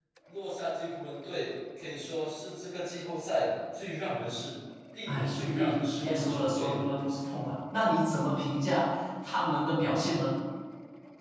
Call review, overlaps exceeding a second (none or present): present